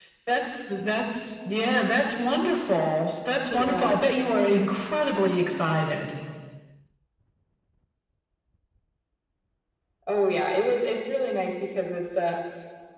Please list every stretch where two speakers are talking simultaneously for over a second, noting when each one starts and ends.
none

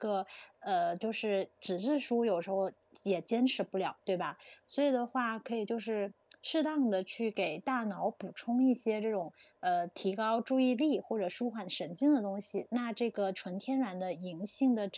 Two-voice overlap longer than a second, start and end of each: none

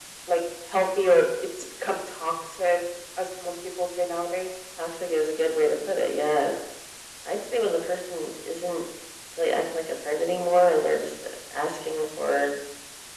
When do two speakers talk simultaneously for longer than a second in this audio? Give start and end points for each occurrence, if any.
none

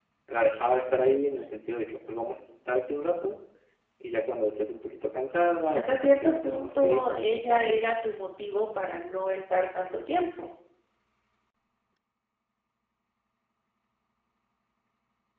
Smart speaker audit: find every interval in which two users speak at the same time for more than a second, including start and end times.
5.7-7.8

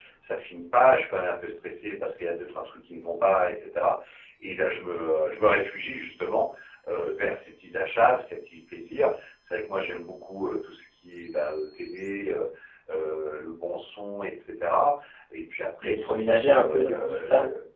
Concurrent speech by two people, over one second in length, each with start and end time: 15.8-17.2

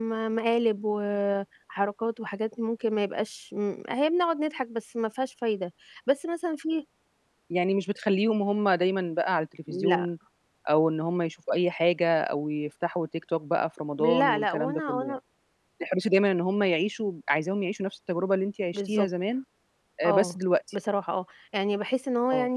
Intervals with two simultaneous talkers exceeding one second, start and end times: 14.0-15.2

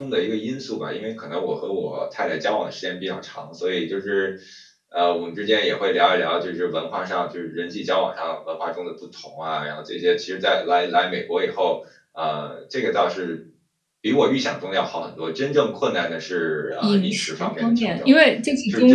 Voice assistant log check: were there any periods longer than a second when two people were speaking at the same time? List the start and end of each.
16.8-18.1

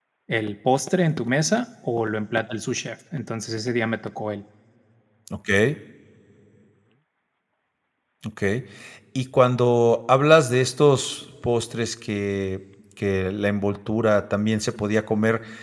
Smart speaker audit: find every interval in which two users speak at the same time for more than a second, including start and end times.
none

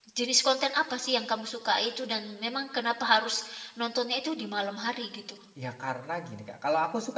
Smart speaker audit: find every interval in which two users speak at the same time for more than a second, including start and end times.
none

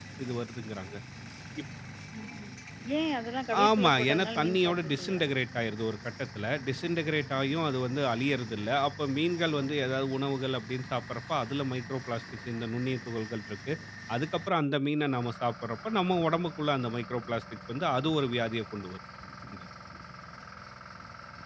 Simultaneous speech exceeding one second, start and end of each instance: 3.7-5.2

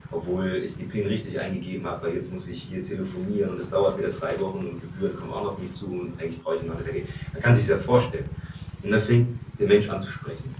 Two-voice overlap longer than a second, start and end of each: none

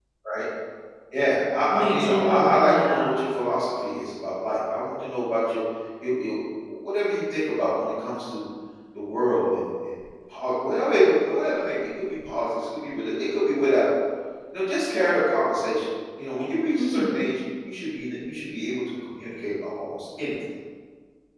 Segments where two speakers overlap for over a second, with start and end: 1.7-3.1

